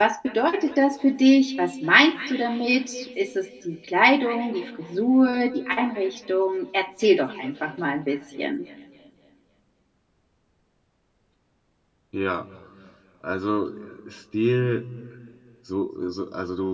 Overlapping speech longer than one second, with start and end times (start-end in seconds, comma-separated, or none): none